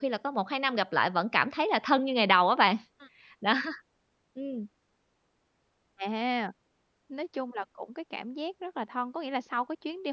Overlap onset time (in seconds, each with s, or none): none